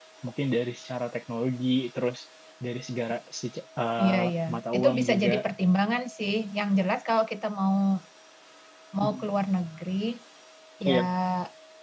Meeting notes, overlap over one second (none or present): present